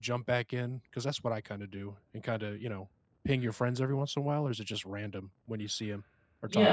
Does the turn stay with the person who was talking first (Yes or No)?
No